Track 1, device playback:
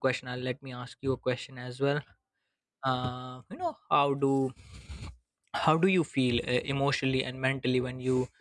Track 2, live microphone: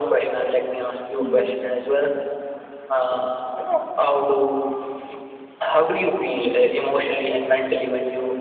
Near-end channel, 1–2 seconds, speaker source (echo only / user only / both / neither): both